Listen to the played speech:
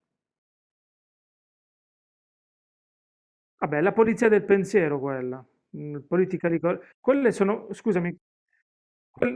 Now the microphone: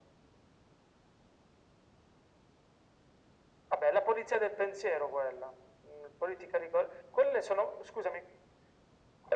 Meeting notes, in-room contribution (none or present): none